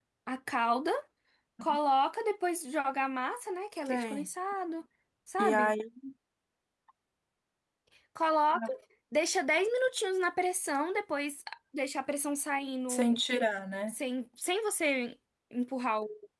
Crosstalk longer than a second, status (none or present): none